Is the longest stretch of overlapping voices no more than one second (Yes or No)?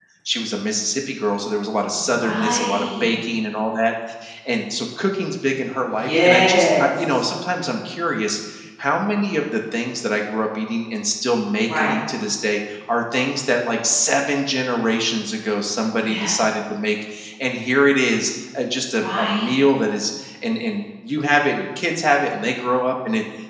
No